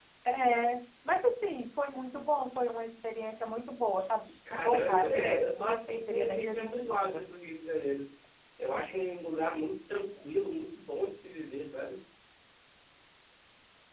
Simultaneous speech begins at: 4.5 s

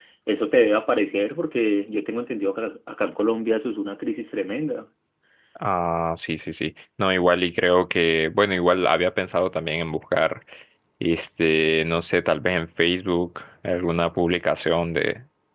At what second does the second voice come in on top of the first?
none

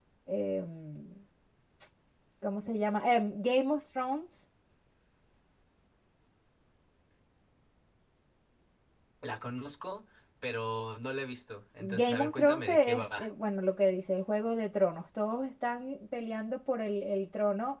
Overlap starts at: 11.8 s

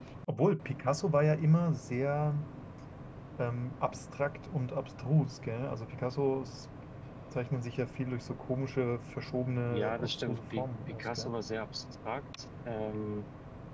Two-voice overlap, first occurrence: 9.7 s

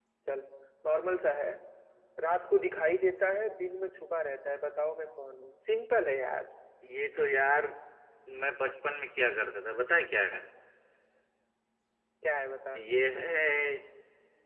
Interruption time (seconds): none

